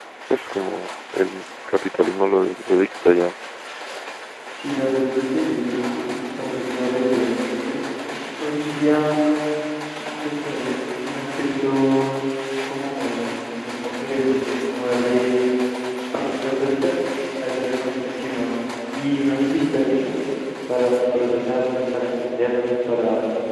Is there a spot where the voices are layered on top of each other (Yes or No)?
No